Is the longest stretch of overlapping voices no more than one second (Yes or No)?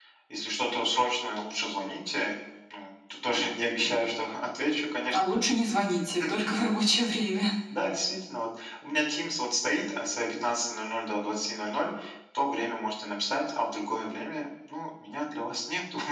Yes